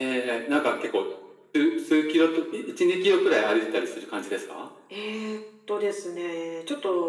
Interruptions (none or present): none